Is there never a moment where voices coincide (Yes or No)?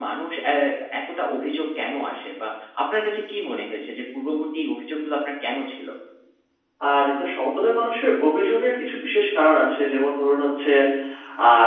Yes